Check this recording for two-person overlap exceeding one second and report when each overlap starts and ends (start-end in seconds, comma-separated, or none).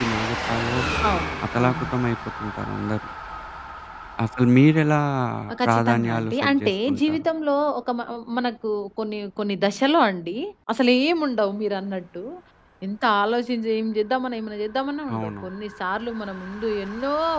5.6-7.3